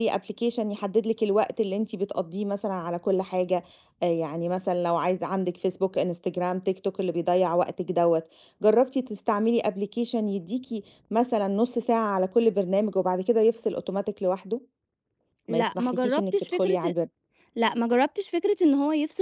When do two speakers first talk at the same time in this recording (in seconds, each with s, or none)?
15.5 s